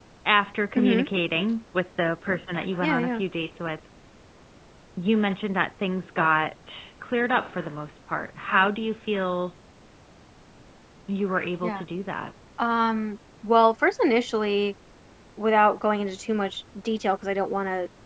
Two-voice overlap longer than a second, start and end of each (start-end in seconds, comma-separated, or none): none